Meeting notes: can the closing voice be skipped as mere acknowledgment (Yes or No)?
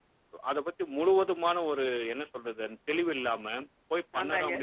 Yes